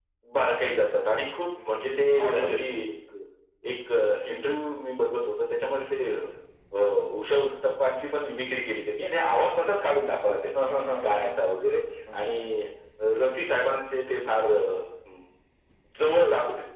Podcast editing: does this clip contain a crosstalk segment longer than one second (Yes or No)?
No